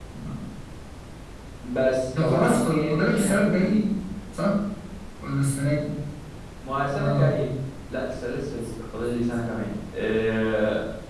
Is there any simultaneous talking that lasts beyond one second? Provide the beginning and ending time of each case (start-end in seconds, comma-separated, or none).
2.2-3.8